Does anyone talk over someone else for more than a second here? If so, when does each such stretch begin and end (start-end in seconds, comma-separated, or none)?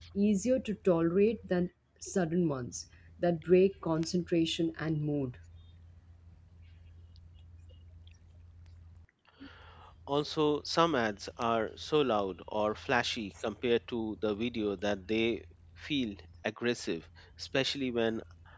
none